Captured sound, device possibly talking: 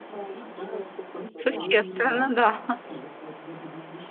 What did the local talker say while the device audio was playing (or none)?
Существенно, да.